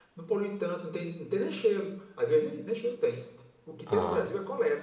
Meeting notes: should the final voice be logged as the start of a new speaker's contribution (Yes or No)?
No